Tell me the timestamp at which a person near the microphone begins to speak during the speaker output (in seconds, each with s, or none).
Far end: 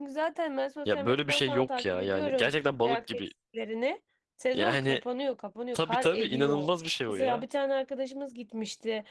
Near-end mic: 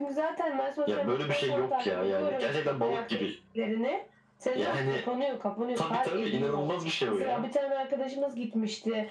none